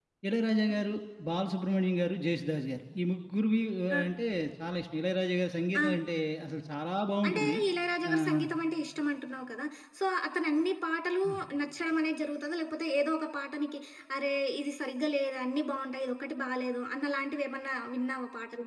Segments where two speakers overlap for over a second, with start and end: none

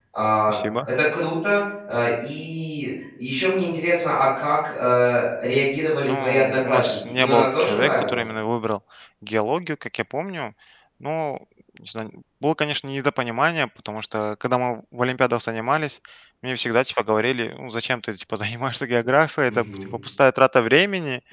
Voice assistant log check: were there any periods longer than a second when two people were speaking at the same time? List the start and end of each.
6.0-8.2

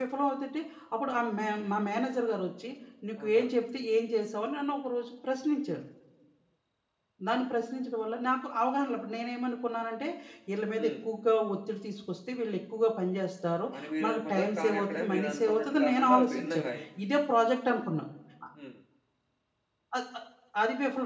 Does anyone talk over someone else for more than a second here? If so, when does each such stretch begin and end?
14.0-16.7

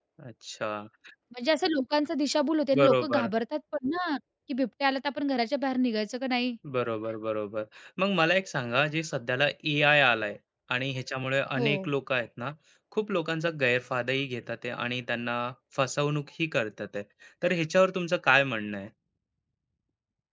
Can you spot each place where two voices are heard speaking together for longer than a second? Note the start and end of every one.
none

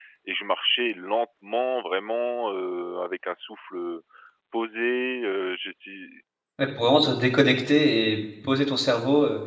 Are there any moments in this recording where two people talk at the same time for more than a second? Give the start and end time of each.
none

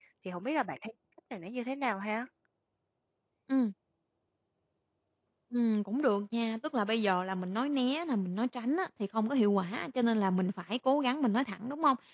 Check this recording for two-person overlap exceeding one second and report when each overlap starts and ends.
none

